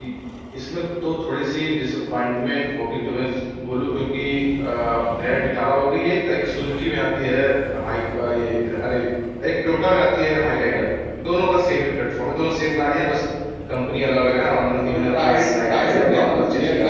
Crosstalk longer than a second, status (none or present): present